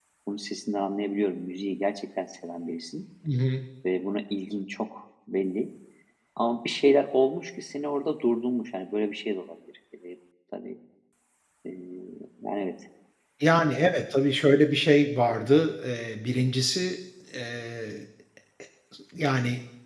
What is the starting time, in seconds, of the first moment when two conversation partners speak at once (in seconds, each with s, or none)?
none